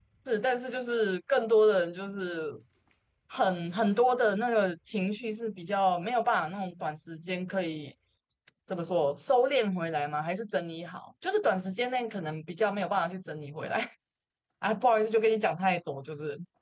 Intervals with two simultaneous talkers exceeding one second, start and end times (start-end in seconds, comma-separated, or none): none